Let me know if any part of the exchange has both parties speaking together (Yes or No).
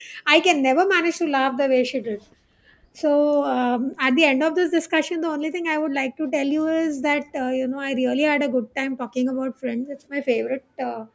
No